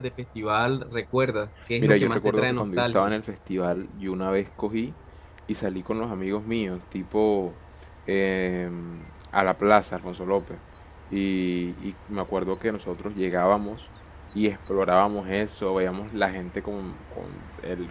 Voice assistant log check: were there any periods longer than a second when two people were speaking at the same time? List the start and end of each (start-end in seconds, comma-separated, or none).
1.8-3.1